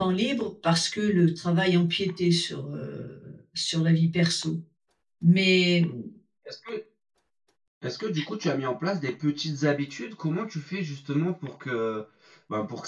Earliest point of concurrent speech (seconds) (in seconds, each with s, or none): none